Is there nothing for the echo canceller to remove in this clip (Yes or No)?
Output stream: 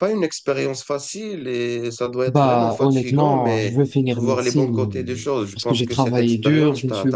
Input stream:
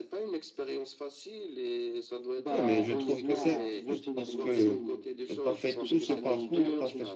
No